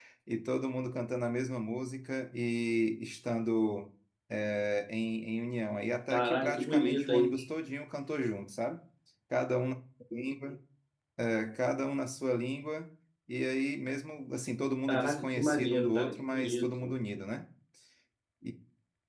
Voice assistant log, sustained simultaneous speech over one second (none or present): present